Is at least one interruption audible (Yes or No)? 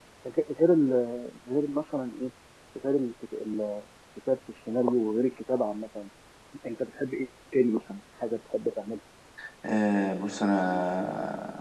No